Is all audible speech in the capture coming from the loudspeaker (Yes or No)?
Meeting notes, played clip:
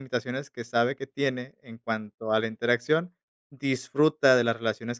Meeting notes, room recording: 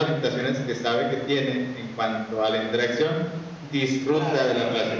No